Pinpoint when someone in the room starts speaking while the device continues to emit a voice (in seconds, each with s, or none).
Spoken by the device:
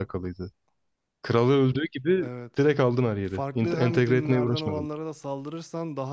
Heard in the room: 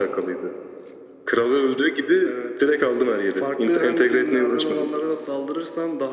none